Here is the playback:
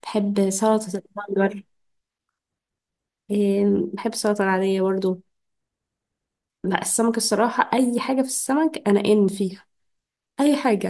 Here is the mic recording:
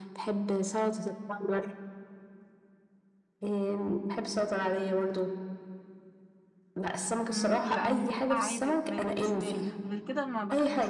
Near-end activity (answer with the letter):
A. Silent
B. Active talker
B